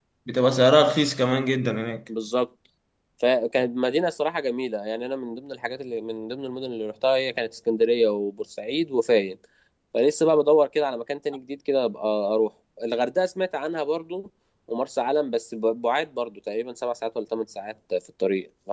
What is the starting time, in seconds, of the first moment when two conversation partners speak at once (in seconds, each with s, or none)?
none